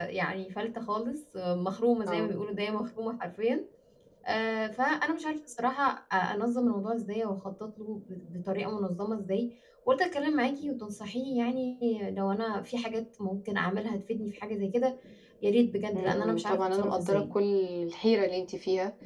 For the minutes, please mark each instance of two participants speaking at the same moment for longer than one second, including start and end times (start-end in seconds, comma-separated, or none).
15.9-17.3